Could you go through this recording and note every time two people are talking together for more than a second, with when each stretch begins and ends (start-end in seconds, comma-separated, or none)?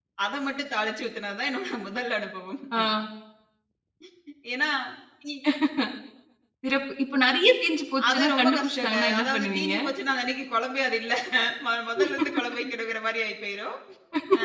8.1-9.7